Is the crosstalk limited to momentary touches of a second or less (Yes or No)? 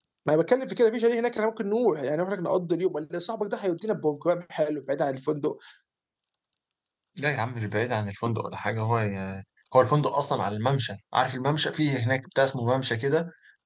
Yes